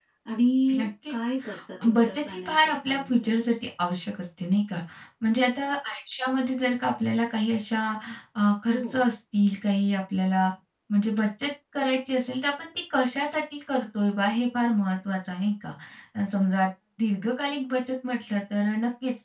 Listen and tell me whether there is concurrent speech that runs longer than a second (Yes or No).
Yes